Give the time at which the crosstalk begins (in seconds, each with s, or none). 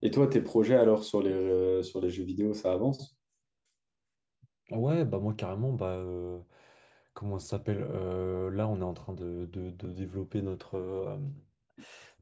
none